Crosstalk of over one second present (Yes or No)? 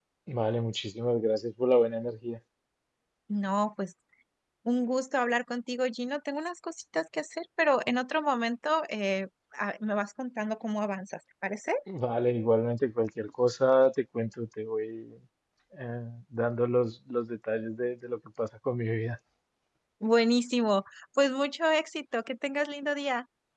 No